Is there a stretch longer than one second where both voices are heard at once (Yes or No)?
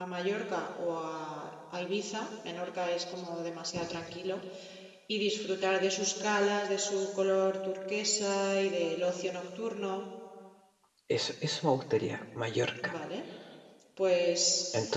No